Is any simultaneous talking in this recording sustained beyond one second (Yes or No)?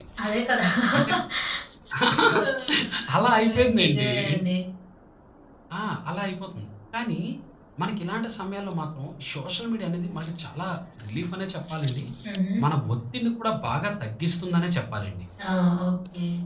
Yes